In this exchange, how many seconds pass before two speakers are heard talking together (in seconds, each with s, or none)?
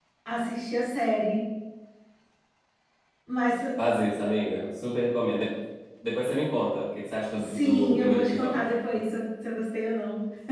7.3 s